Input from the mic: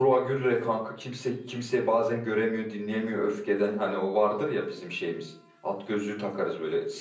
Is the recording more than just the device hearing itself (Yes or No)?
Yes